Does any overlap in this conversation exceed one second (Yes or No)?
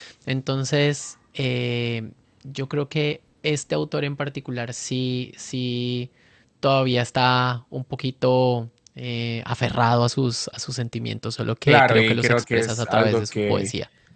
Yes